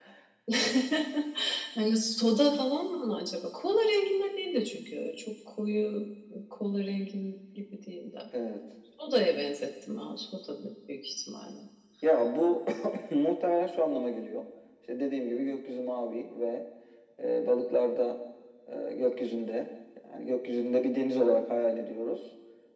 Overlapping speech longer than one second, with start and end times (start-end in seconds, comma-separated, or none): none